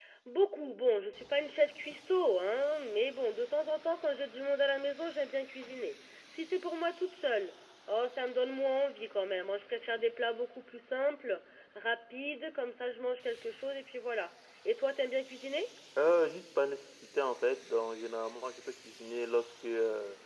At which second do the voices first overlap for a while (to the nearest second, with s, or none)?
none